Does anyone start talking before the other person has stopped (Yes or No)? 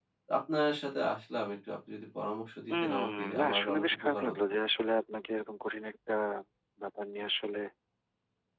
Yes